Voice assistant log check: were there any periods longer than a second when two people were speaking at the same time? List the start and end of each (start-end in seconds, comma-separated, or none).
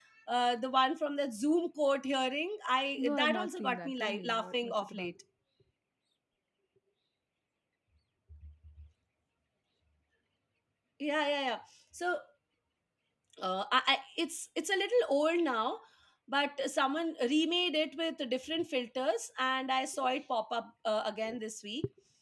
3.0-5.1